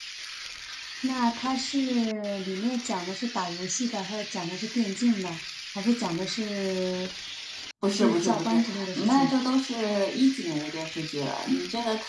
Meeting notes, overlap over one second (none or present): present